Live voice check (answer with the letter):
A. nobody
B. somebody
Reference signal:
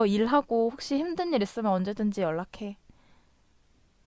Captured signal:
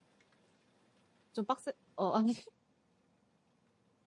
B